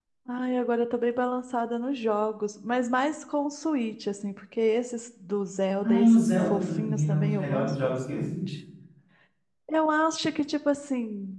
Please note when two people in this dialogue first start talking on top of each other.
5.8 s

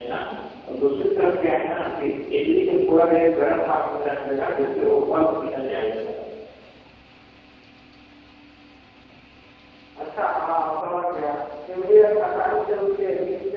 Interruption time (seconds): none

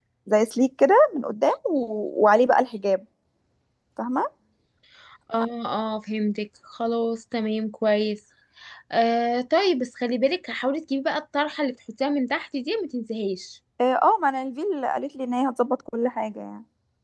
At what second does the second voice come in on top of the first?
none

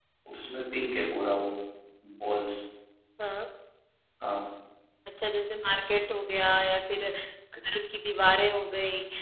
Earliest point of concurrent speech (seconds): none

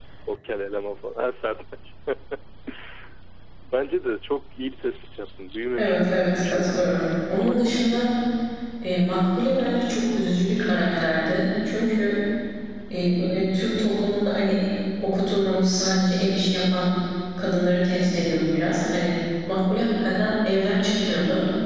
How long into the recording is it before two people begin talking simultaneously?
5.8 s

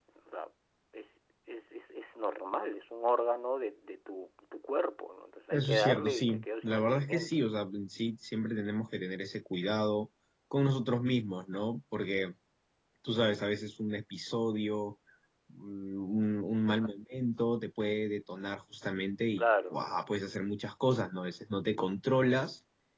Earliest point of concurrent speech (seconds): 5.5 s

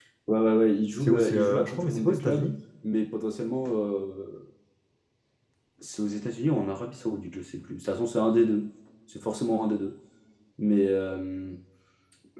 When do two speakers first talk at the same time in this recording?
1.0 s

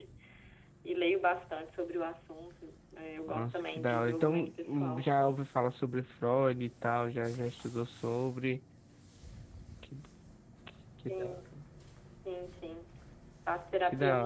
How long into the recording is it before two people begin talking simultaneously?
3.3 s

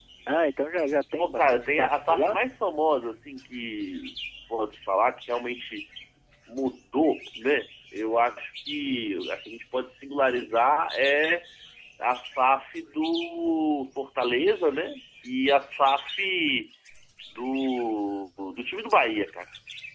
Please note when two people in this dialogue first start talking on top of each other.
1.2 s

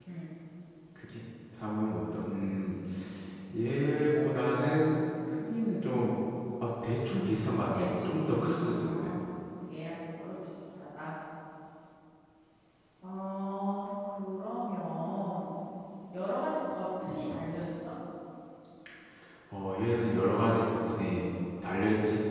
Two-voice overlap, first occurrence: 7.7 s

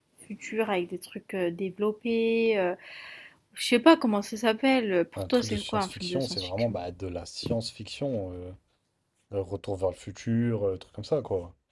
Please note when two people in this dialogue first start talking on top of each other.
5.2 s

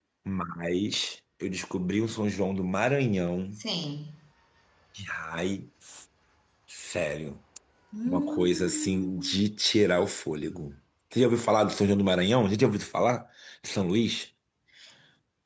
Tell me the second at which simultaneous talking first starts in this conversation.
8.1 s

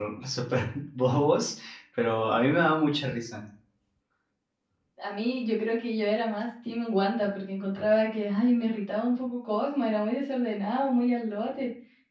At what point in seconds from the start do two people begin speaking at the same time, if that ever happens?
none

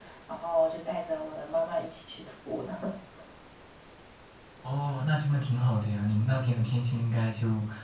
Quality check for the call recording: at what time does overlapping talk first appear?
none

